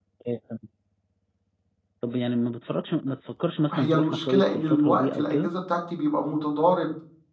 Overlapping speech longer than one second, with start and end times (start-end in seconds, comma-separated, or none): 3.7-5.5